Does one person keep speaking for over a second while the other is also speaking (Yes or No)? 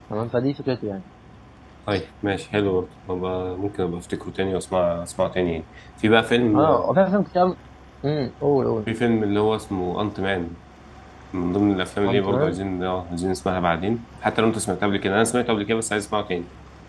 No